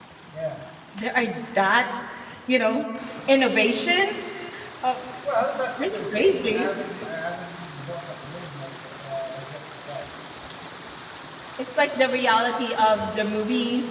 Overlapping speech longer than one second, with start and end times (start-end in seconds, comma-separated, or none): 5.4-6.7